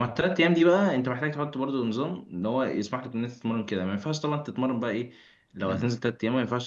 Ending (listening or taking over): listening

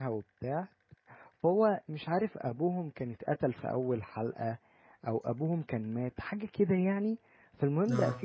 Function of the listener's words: listening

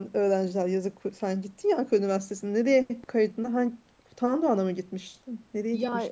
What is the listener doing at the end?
taking over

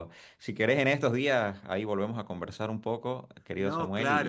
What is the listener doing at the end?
listening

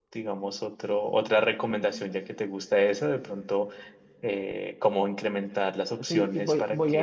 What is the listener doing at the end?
taking over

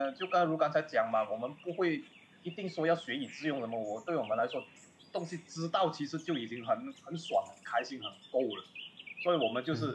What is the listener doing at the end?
listening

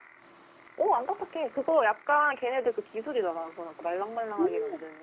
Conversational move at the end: taking over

